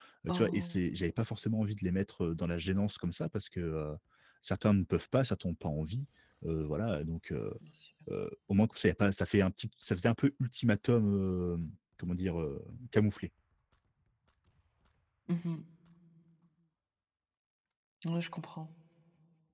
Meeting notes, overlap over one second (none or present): none